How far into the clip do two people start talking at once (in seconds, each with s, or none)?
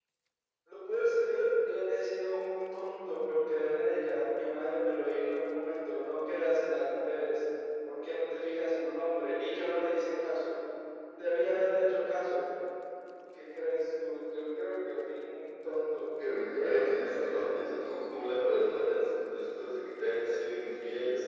16.6 s